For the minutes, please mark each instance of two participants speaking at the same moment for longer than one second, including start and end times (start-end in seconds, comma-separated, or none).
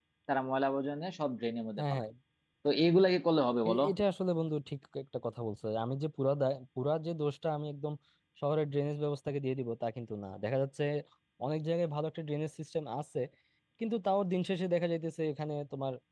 none